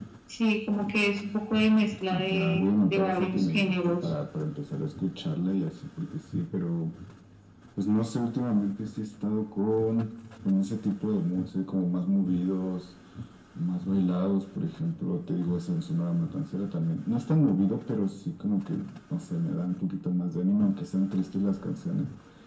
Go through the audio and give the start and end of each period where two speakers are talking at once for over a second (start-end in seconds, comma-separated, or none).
2.1-4.1